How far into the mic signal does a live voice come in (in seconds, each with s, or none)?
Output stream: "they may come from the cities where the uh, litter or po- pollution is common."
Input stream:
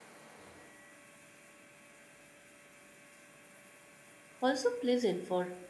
4.4 s